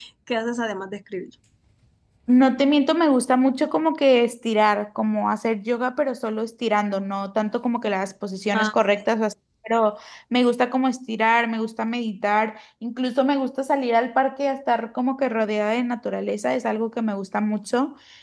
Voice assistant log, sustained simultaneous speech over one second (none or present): none